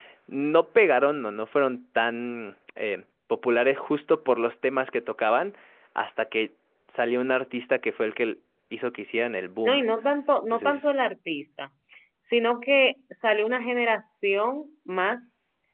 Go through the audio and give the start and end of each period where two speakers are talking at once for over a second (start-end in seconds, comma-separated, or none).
none